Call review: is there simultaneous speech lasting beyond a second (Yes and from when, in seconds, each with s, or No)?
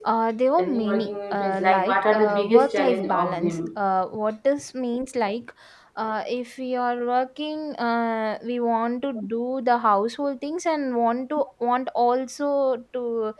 Yes, from 0.6 s